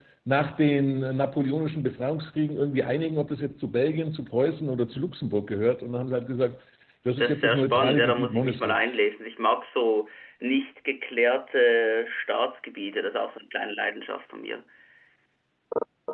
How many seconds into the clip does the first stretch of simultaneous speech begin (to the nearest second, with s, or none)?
7 s